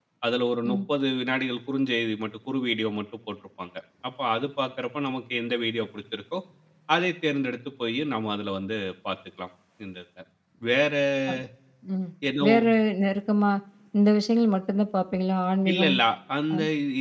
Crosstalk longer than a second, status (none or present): none